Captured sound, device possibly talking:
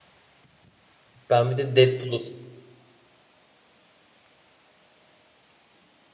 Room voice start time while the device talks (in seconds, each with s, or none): 1.3 s